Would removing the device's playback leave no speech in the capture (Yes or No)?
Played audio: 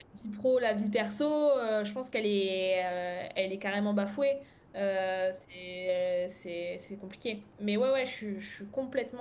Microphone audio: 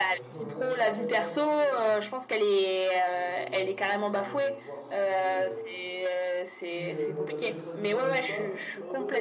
No